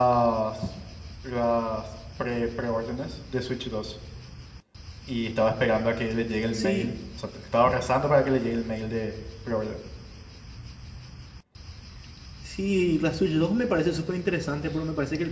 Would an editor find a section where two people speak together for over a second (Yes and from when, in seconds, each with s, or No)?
No